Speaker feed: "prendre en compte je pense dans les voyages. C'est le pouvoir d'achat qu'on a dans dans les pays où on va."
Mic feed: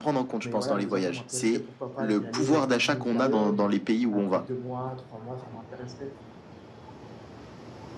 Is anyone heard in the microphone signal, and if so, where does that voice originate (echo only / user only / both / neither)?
both